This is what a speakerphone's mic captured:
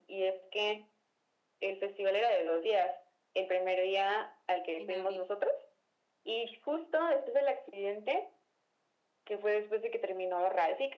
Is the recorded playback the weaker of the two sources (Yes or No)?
No